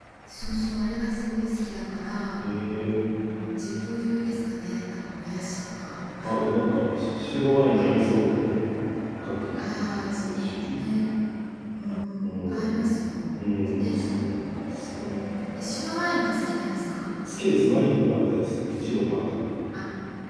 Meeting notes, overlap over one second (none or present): none